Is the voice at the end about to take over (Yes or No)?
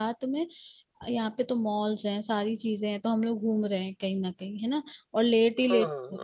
No